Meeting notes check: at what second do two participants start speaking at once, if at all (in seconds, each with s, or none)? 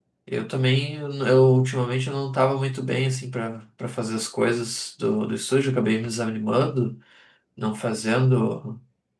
none